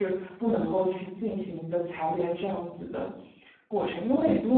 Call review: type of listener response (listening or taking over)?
listening